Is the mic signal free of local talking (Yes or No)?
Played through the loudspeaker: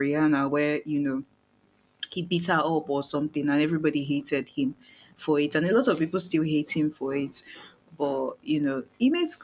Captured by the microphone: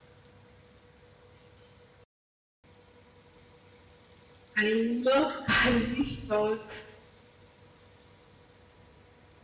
No